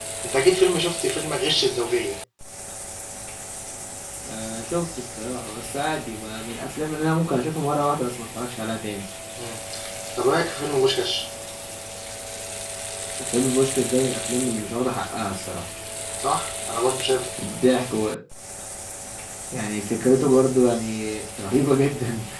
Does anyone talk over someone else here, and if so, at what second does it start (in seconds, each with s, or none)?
none